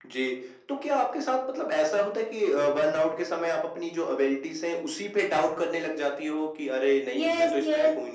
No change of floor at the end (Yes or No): No